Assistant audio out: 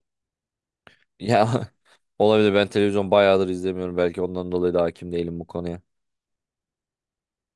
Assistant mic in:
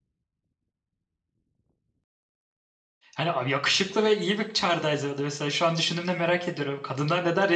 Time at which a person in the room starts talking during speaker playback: 3.2 s

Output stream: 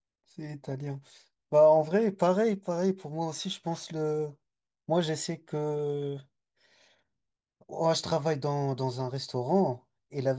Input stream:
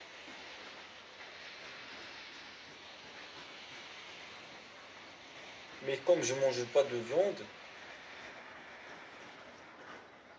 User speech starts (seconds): 5.8 s

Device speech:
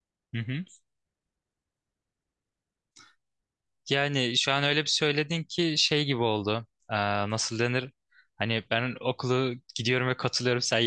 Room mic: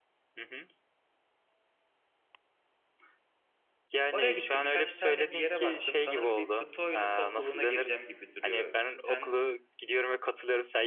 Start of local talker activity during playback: 4.1 s

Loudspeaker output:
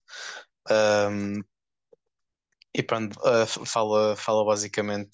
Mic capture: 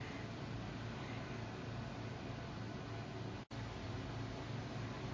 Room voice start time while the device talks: none

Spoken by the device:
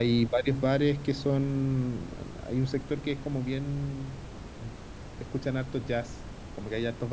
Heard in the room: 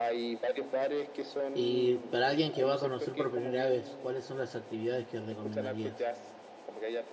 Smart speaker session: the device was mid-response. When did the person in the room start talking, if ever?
1.5 s

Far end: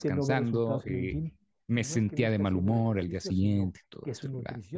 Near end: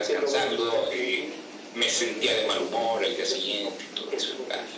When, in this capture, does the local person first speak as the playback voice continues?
none

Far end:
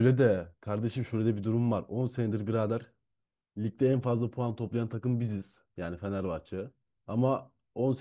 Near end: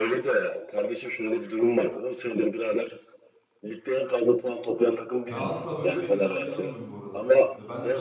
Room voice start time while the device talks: 5.3 s

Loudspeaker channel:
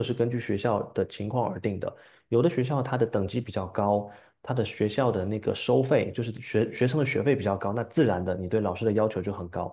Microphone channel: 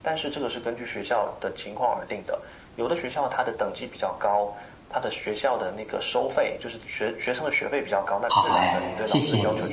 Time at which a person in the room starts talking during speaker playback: 8.3 s

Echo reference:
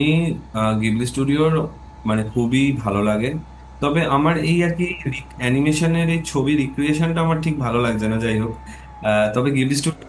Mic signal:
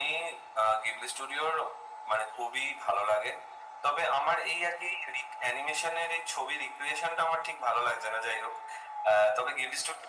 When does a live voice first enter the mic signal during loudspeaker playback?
none

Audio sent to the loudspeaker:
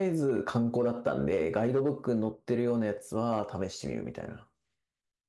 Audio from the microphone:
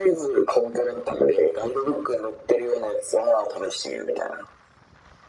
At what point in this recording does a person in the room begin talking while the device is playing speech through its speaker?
none

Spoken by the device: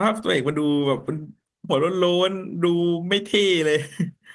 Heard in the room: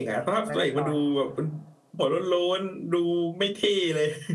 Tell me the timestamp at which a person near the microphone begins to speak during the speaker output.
0.4 s

